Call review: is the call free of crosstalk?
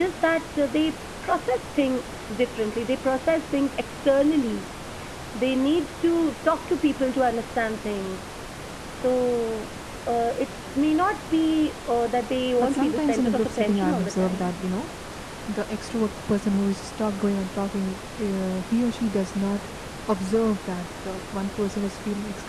No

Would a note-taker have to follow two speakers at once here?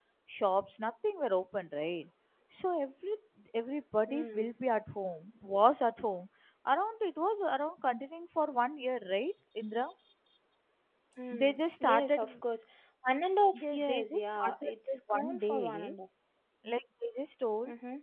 Yes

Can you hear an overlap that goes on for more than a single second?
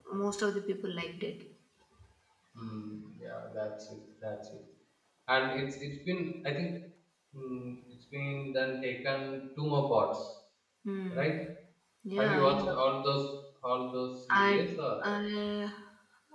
No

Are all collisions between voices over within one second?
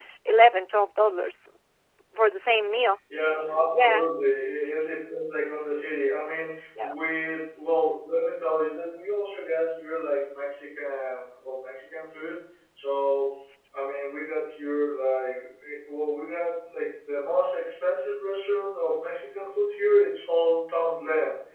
Yes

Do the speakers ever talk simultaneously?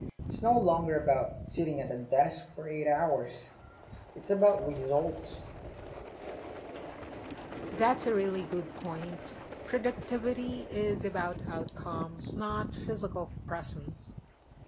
No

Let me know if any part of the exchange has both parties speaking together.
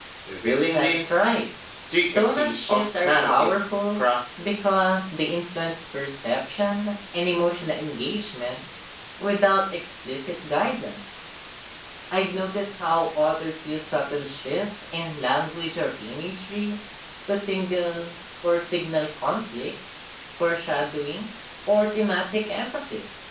Yes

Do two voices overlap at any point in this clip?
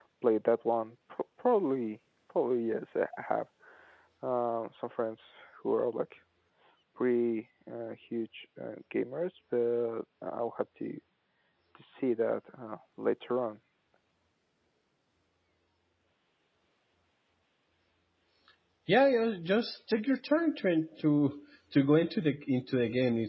No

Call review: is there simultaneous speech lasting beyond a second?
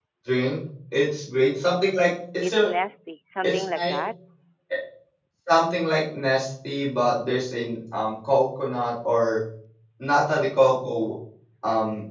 No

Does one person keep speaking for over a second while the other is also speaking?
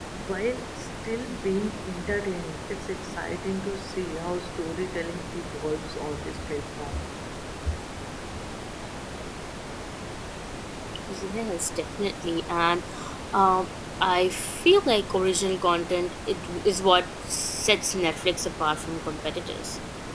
No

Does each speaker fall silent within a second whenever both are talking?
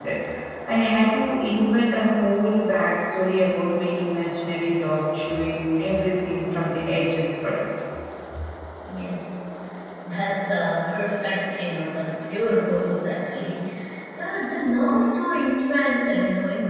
Yes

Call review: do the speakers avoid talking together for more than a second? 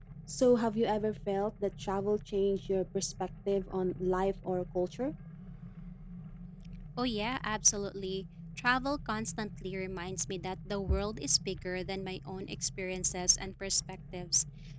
Yes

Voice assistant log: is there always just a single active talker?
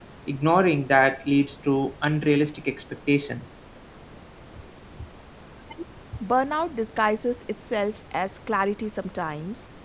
Yes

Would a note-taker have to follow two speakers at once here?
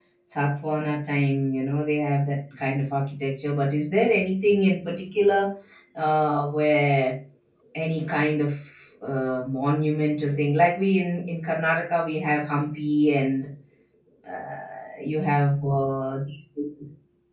No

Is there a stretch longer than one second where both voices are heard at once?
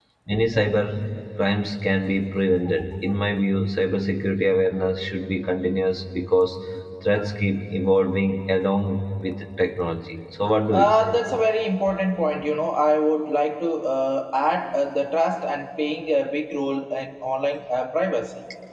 No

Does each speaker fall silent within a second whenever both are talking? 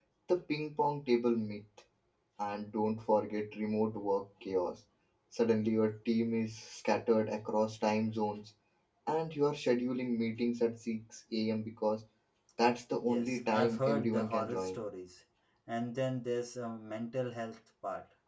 No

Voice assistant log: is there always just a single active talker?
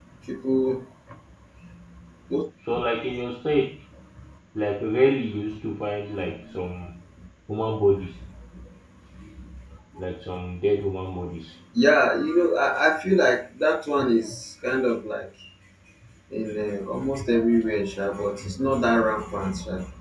Yes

